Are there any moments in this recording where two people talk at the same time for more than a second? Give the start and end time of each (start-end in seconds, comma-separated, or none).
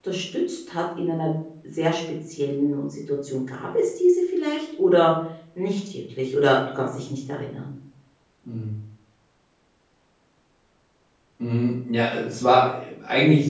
none